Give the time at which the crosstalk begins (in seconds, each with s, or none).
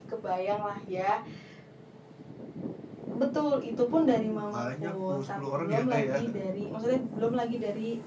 4.0 s